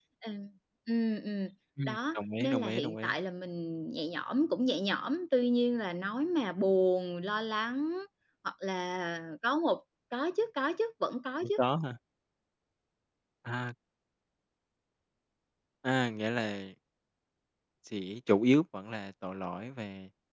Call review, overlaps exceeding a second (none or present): present